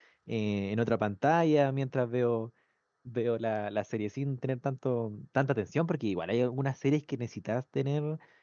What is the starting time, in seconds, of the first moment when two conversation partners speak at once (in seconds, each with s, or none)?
none